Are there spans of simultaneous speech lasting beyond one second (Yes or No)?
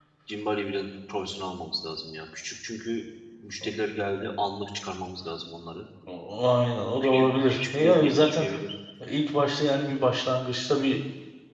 Yes